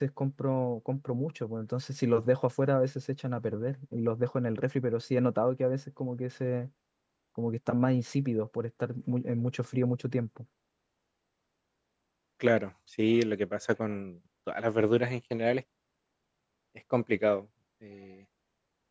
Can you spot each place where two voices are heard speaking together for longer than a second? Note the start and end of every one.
none

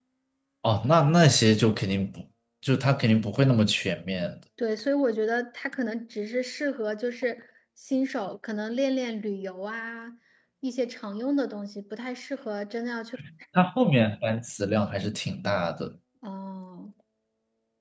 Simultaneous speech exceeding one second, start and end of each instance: none

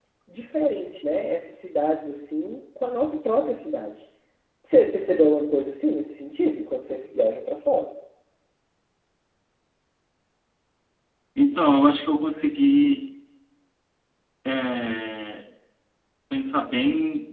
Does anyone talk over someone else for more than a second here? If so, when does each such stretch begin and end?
none

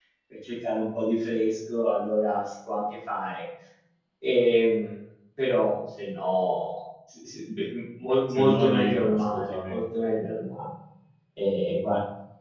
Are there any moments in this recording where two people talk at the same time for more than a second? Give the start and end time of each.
8.3-9.8

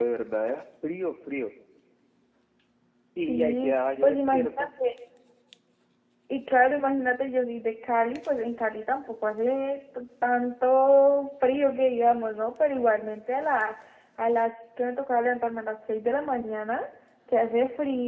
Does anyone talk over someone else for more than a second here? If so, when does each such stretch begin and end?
3.2-4.7

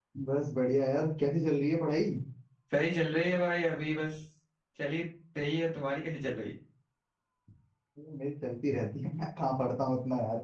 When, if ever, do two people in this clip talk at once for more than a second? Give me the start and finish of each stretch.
none

